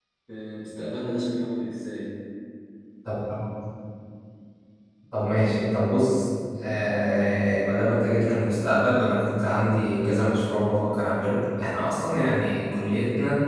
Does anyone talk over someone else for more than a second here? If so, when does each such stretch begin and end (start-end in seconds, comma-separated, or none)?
none